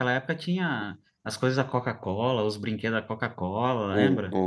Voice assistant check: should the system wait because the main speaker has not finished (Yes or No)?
No